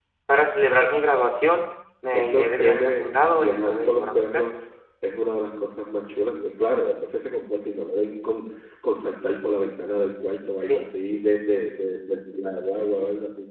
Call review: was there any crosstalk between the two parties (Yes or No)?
Yes